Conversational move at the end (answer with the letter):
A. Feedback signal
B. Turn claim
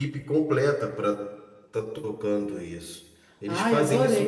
A